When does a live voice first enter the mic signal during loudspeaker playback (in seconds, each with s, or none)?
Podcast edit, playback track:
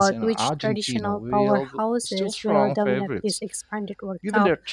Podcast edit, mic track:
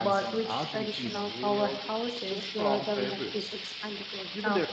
none